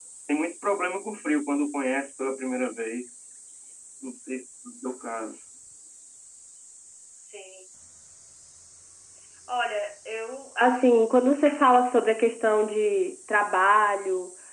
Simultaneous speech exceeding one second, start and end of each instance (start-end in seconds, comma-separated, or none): none